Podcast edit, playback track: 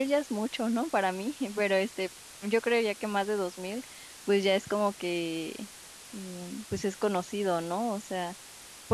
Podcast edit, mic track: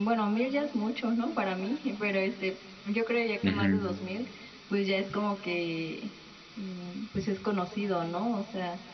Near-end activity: present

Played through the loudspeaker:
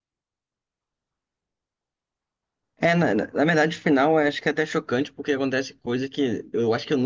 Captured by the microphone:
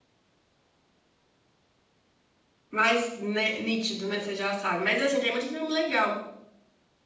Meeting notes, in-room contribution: present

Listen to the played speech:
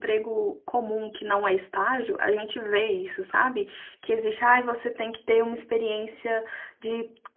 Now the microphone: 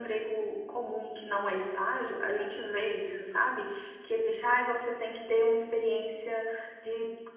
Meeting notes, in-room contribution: none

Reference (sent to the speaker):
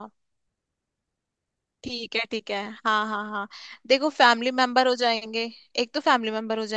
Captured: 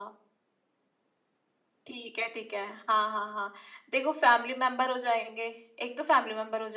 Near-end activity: none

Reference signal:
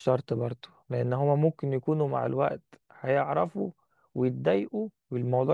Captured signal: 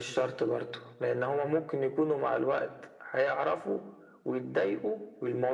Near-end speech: none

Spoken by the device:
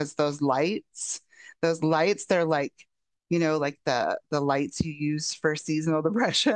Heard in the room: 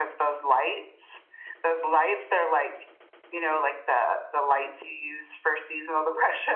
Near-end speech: none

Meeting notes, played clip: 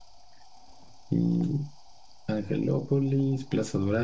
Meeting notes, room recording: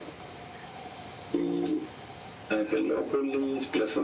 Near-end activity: none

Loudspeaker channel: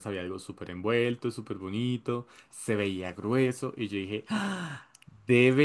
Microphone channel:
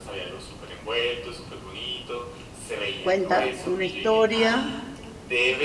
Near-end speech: present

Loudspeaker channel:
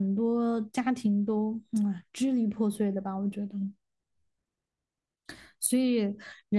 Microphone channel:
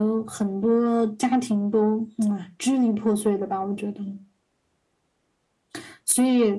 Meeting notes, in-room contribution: none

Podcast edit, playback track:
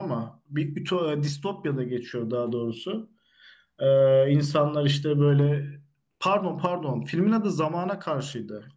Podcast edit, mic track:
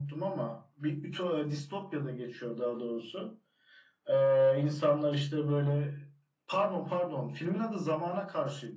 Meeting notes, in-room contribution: none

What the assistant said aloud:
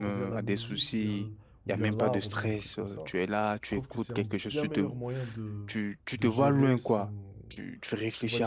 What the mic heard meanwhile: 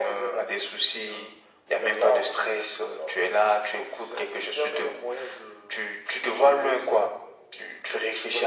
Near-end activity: none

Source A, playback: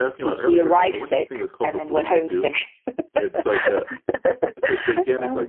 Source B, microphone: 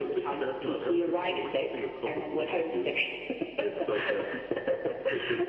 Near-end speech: none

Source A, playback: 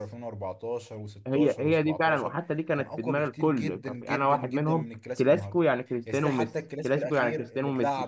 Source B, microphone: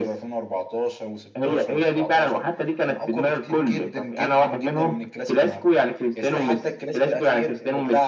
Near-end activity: none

